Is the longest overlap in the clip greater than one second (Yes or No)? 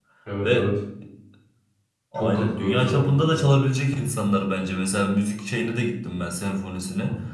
Yes